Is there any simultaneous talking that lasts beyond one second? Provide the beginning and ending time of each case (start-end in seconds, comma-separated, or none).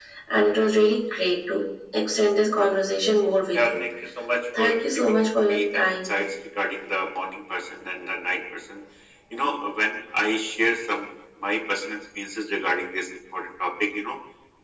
4.6-6.1